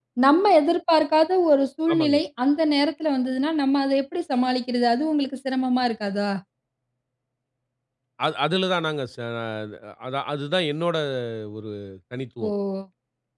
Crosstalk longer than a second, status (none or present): none